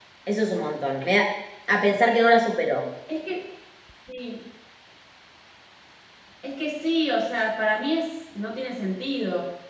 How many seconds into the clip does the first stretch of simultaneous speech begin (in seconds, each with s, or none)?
none